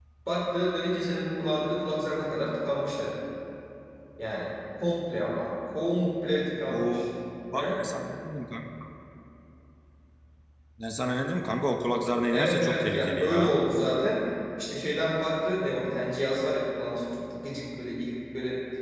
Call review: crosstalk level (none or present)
present